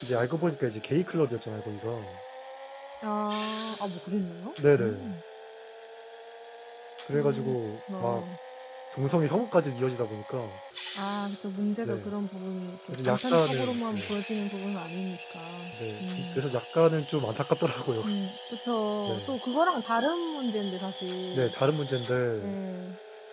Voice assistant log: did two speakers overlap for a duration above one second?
Yes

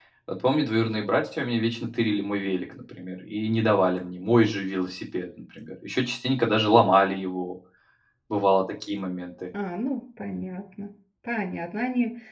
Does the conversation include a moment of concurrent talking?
No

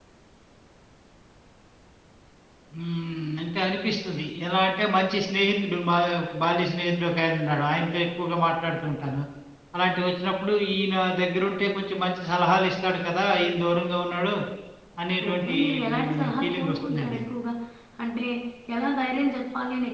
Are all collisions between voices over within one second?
No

